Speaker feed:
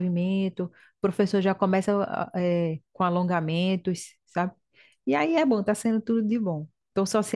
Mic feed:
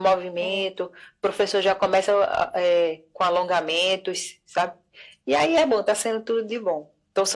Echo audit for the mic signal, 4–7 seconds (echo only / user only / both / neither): echo only